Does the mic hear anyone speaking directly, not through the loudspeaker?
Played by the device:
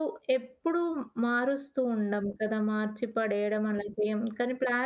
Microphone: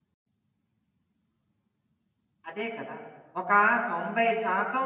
Yes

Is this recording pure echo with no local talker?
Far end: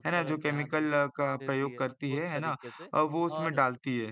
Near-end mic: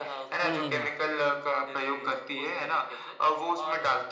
No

